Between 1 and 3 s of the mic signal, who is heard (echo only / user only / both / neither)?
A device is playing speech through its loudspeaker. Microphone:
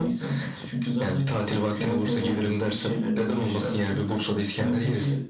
echo only